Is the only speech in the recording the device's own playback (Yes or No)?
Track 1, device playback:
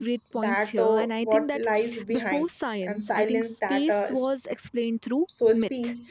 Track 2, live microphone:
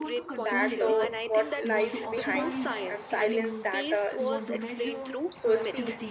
No